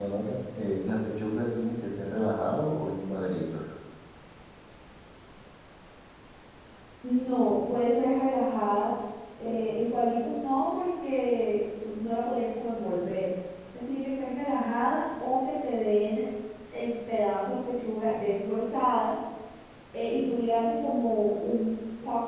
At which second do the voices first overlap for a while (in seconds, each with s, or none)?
none